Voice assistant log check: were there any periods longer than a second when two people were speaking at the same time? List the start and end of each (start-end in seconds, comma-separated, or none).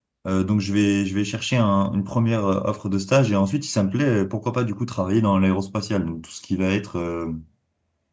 none